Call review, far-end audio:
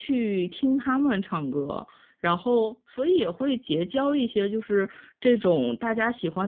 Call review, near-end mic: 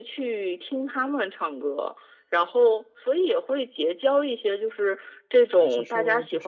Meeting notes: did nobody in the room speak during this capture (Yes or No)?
No